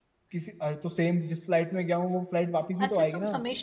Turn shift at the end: Yes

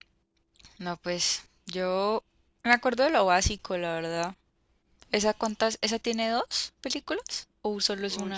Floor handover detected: Yes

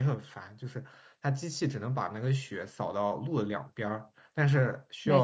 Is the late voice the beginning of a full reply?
No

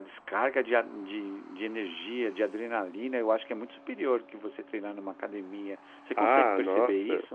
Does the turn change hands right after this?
Yes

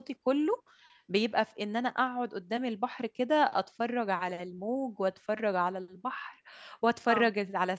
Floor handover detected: No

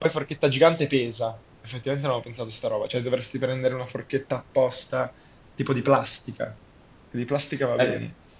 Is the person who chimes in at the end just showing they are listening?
No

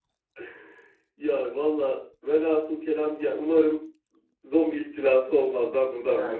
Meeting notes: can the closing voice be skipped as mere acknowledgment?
No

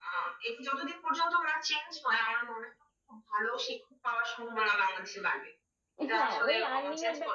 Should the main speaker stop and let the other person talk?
Yes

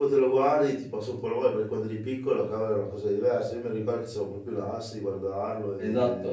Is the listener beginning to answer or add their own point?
Yes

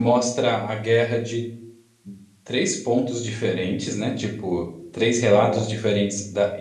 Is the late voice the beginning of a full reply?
No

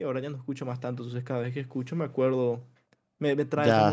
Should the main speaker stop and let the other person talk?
No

